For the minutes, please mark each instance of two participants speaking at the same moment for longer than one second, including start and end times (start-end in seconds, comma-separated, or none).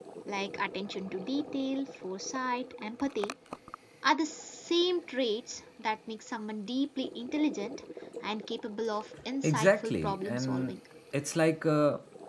9.4-10.8